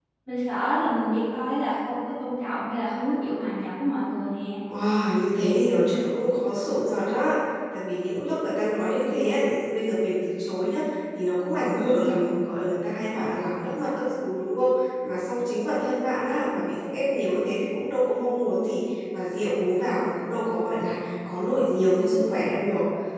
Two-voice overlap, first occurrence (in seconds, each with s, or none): none